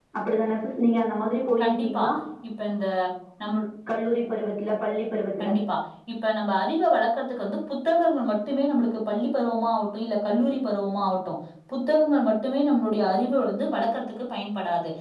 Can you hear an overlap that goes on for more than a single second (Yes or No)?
No